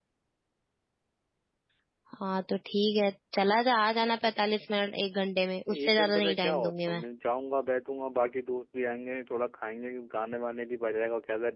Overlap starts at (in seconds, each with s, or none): 5.7 s